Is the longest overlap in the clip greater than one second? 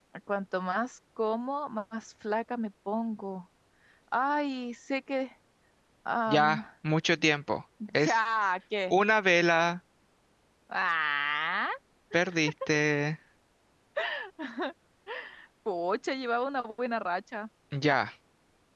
No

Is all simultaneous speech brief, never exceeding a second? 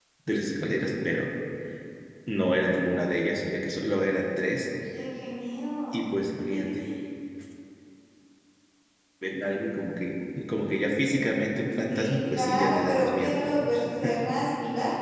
No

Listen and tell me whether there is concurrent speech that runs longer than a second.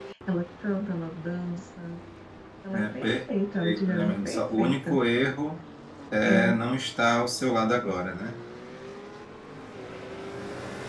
Yes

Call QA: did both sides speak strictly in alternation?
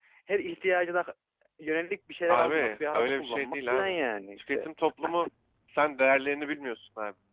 No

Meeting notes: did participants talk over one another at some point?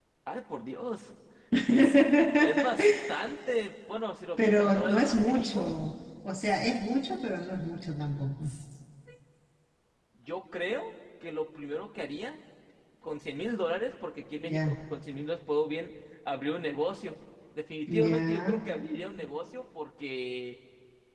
Yes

